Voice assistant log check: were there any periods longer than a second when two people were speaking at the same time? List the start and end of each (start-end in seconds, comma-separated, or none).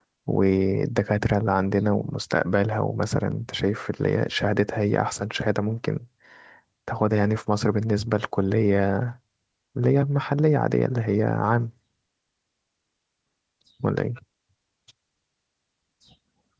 none